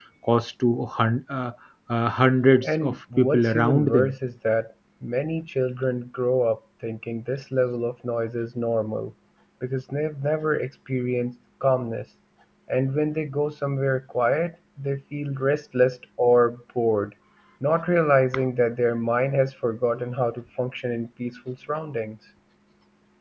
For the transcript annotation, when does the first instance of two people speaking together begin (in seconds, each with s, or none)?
2.6 s